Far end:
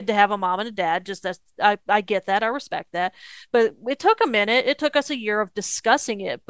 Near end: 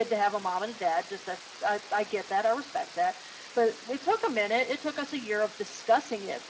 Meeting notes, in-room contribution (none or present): none